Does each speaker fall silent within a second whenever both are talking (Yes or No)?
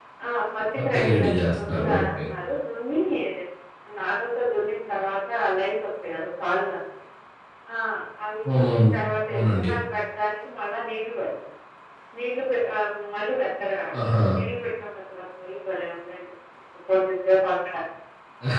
No